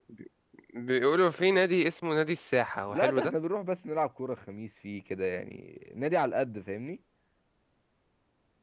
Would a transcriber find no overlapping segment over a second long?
Yes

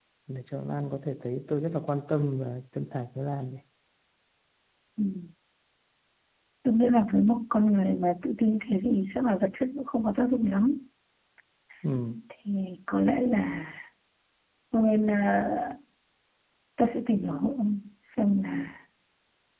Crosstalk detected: No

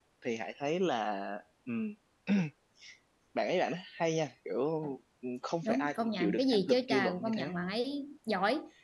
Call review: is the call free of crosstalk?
No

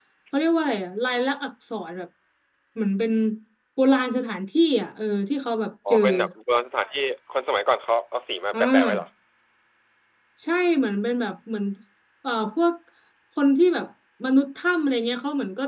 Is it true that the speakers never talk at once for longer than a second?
Yes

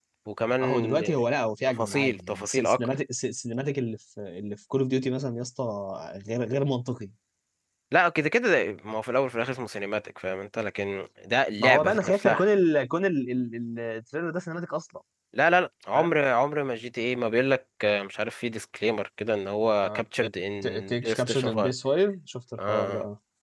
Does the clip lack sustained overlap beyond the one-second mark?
No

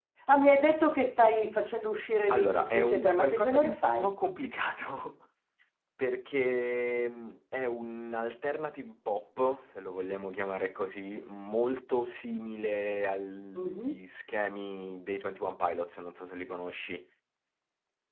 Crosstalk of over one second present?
Yes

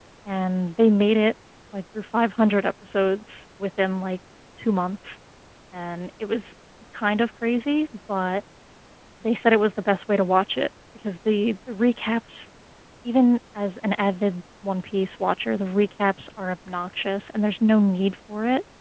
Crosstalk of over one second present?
No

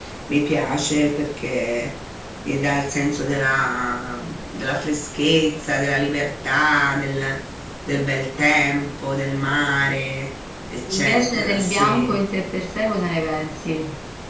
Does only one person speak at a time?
No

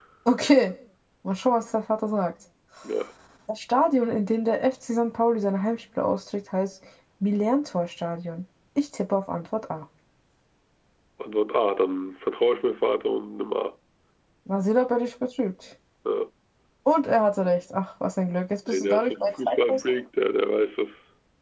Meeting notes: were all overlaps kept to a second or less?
No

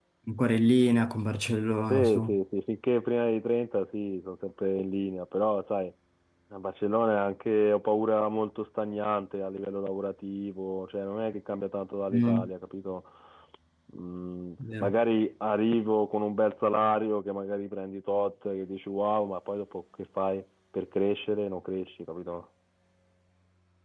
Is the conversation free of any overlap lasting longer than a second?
Yes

